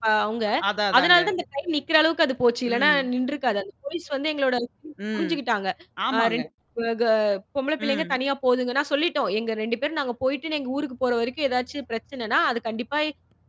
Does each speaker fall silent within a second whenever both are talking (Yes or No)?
Yes